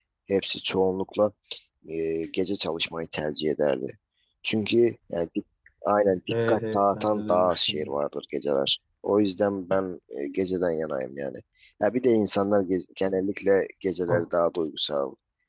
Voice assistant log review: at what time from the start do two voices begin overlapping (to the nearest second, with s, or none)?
6 s